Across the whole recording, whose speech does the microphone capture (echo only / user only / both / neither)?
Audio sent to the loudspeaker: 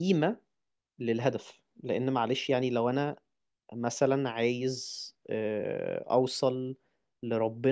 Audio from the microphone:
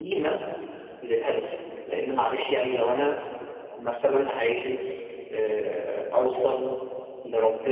echo only